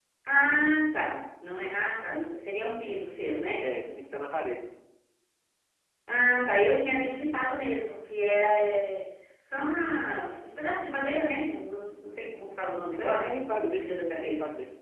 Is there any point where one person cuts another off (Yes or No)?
Yes